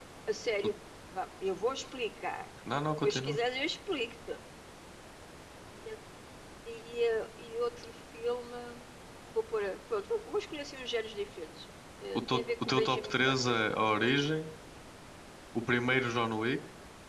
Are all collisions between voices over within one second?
No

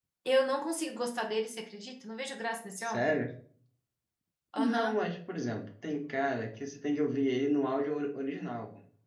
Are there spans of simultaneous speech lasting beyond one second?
No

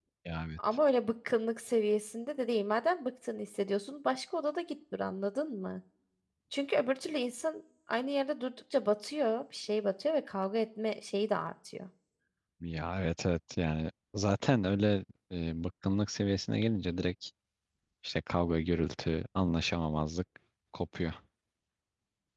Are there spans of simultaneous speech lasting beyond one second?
No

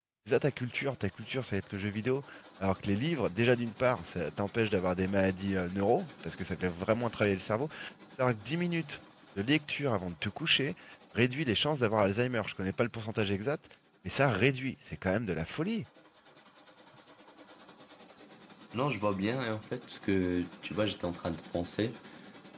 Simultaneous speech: No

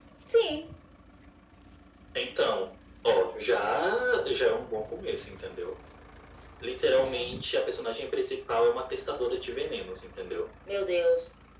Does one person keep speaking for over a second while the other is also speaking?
No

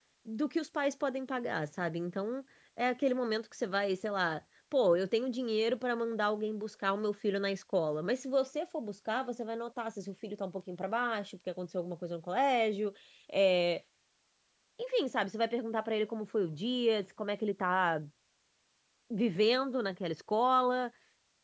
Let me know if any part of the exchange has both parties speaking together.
No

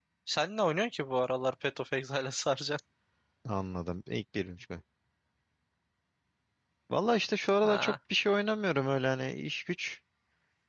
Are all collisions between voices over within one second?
Yes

